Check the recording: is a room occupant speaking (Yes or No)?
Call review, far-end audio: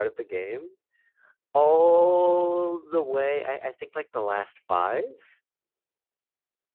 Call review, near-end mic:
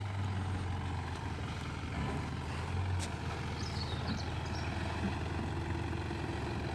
No